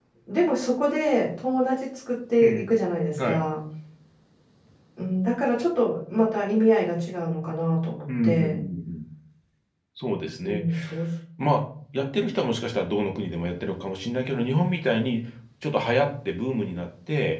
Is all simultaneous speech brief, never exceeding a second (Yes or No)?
Yes